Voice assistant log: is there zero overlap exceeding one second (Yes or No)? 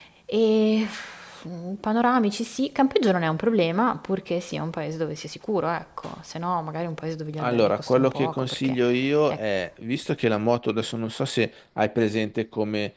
No